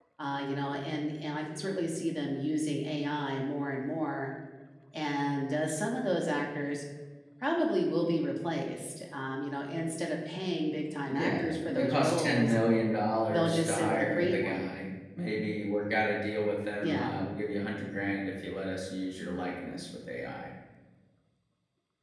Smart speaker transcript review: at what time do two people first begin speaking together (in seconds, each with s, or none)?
11.1 s